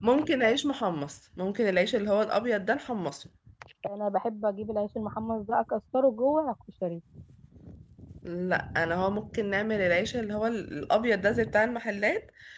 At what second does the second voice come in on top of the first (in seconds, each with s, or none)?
none